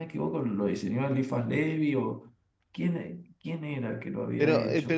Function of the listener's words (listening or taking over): taking over